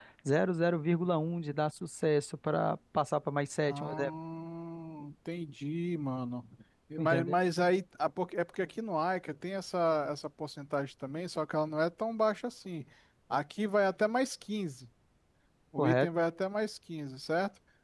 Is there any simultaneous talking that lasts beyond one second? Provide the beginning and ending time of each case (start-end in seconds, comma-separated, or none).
none